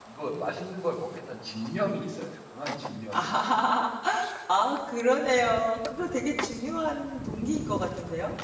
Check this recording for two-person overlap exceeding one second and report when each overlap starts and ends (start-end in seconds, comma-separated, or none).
none